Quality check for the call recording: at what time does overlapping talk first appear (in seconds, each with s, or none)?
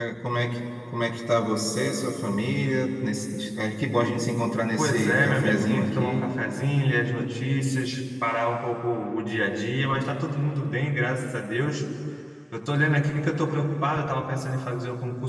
4.8 s